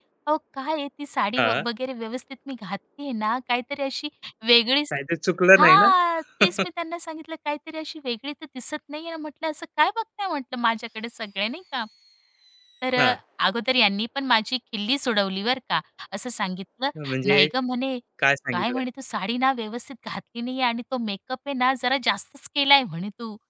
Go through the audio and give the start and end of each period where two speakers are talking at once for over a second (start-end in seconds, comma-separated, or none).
none